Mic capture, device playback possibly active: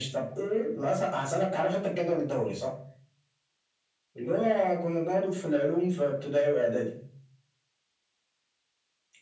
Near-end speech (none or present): none